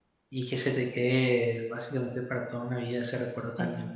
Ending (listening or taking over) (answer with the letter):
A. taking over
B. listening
B